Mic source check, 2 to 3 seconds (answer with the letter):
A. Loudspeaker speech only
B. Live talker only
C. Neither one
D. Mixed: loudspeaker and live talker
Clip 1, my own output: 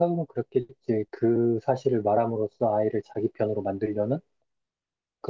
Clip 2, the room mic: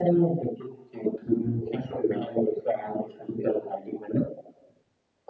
A